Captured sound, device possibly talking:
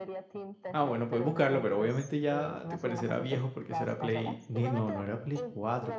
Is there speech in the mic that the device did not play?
Yes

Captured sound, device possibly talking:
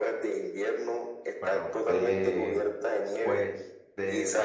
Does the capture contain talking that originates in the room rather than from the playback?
Yes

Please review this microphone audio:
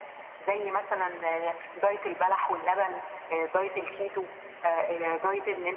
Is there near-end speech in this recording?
No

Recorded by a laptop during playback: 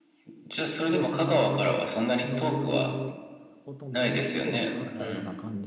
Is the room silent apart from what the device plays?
No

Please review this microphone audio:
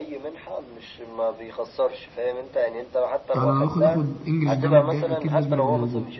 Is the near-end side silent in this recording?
No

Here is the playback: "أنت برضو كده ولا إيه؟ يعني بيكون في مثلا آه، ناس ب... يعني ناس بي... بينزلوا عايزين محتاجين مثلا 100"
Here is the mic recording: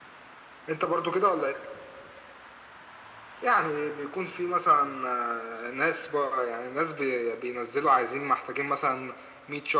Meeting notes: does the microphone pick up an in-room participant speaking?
No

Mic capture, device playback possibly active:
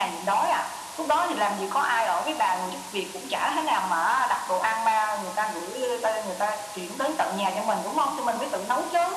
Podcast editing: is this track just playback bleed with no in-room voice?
Yes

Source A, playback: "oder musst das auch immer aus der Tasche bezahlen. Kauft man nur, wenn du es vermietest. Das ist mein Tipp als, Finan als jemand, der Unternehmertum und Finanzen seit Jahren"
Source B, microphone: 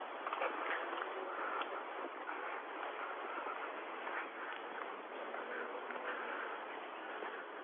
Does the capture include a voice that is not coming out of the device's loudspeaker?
No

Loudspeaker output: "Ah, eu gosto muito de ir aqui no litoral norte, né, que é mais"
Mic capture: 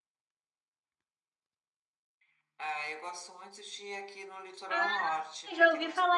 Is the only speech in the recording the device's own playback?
No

